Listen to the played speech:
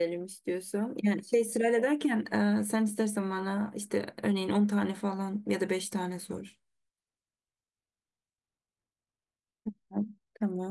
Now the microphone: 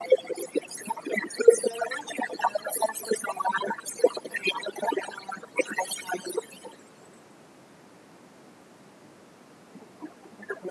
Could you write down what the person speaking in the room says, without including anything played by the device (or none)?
none